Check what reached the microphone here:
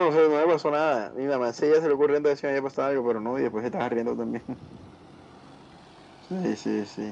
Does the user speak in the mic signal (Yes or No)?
No